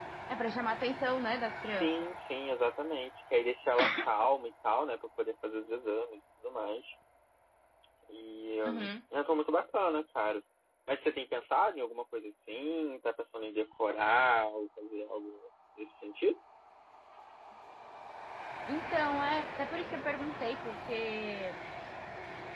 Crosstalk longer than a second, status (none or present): none